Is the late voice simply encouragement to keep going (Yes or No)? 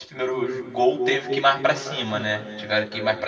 Yes